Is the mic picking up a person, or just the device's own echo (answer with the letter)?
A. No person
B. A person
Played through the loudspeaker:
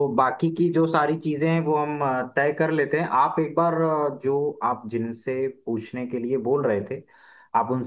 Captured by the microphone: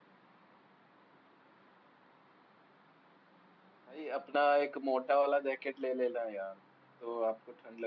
B